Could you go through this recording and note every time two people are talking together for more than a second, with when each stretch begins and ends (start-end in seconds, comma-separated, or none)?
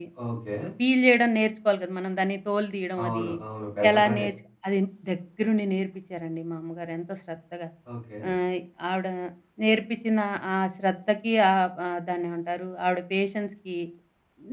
none